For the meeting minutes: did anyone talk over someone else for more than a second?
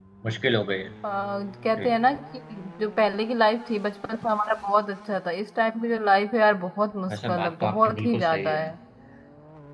Yes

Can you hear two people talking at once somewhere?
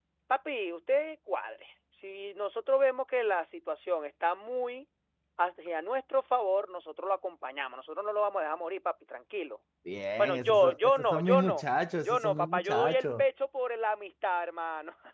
Yes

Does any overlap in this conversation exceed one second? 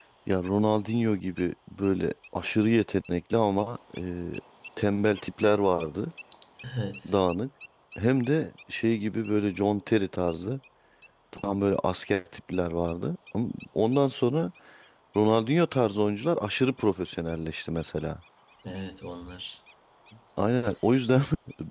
No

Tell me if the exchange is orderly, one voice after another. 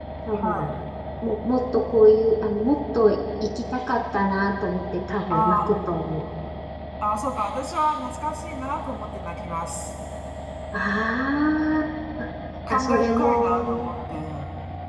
No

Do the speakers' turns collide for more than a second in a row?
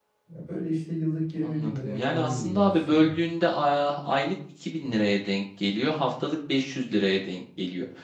Yes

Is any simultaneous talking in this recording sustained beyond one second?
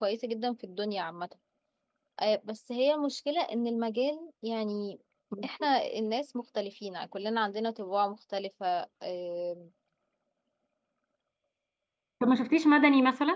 No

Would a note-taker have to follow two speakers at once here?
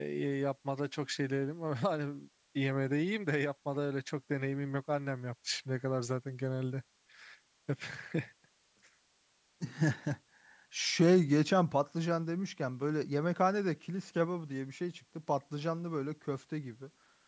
No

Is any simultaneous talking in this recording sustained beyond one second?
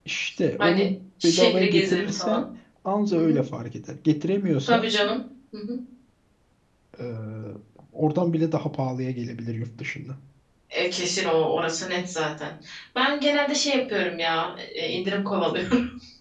Yes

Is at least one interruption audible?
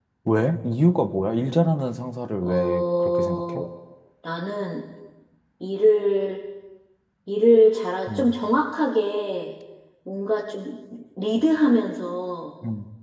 Yes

